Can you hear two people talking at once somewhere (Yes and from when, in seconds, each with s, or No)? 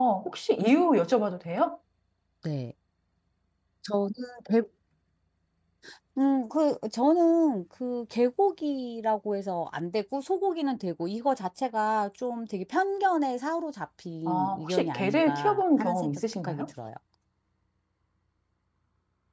Yes, from 14.3 s